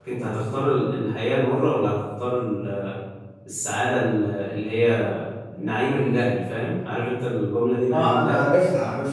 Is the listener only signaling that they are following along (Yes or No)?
No